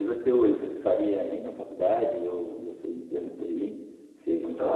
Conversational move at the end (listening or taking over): taking over